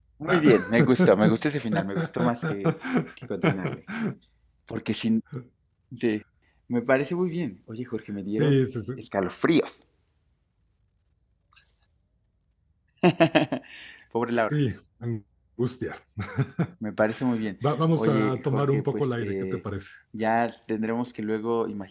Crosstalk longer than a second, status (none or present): present